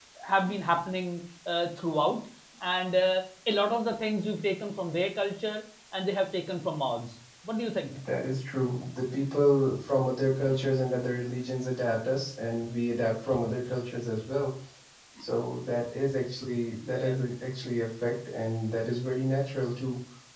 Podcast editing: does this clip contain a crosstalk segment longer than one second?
No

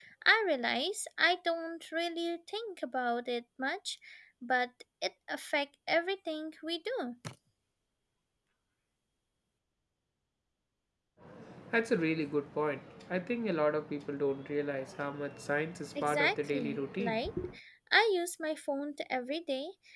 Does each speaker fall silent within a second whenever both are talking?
No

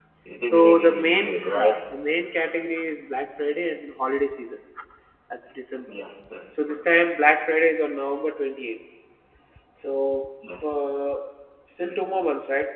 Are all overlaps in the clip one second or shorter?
No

